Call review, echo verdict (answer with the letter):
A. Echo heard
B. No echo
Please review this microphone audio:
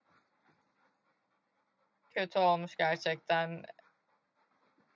B